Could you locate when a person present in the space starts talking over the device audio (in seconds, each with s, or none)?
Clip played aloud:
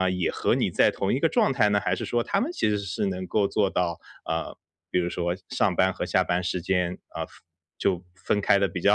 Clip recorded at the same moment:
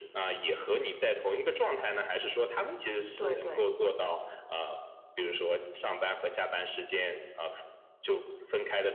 3.2 s